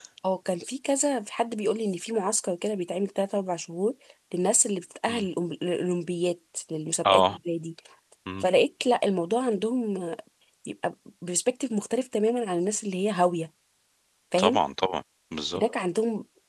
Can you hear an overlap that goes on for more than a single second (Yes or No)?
No